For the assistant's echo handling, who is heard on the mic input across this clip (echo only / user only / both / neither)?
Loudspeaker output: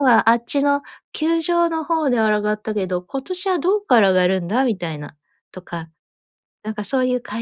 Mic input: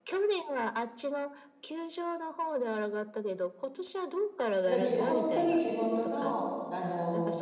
both